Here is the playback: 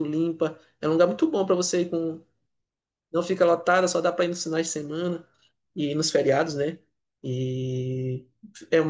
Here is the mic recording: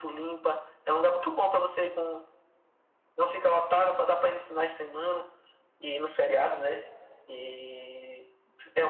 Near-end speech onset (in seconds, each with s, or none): none